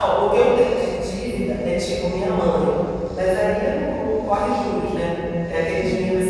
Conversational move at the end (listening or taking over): listening